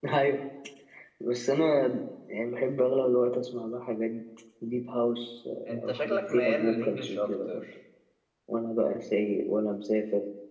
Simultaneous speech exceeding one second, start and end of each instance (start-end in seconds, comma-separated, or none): 5.9-7.6